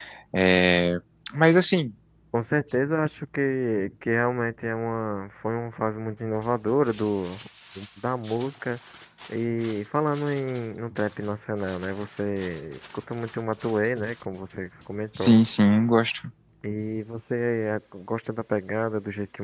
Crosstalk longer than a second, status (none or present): none